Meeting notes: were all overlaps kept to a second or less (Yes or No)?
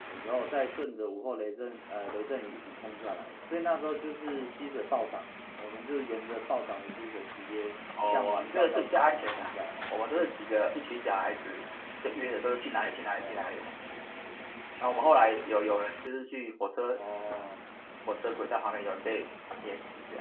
No